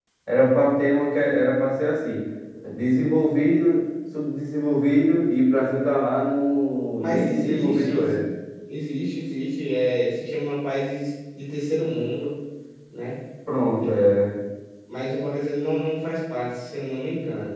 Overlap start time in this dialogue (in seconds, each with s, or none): 7.0 s